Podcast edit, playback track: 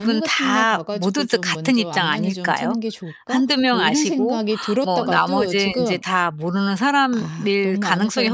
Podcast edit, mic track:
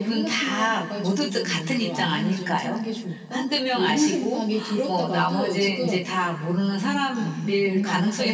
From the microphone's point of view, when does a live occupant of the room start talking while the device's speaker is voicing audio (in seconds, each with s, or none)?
none